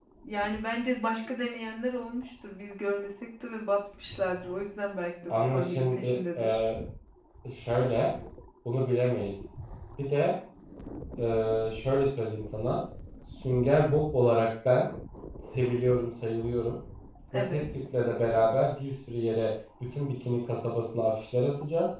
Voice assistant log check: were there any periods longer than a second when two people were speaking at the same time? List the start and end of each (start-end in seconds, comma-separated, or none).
5.3-6.6